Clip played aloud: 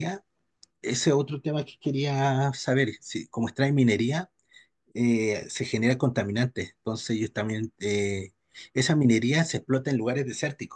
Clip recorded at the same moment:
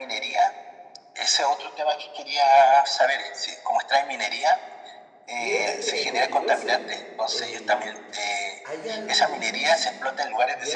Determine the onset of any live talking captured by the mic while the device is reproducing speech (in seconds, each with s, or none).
5.3 s